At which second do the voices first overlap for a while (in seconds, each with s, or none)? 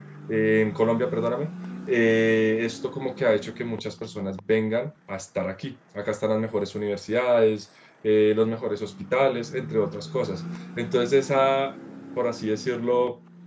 none